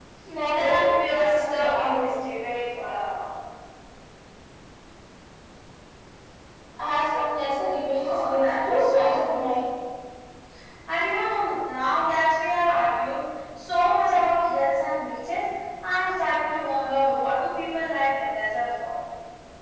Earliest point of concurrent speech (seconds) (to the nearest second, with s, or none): 1 s